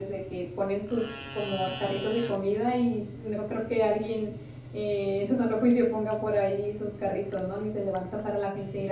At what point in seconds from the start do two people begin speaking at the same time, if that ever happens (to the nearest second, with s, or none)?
none